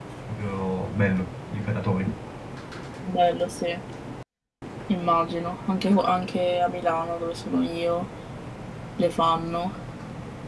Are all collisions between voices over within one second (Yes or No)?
Yes